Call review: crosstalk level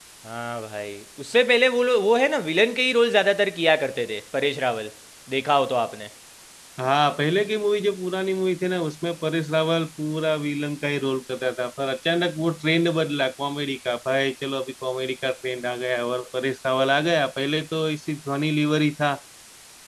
none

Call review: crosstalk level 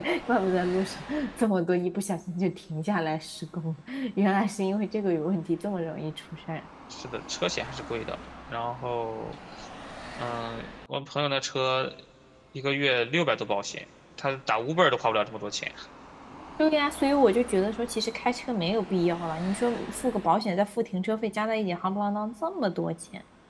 none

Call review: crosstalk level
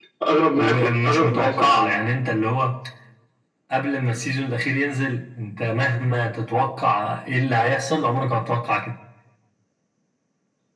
present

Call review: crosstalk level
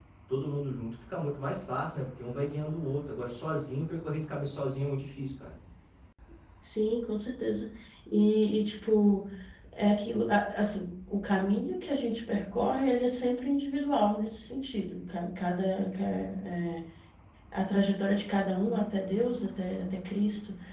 none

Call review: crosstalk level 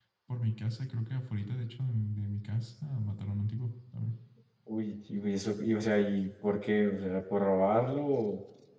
none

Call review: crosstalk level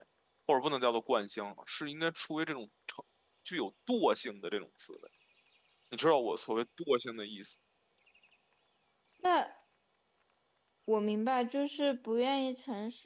none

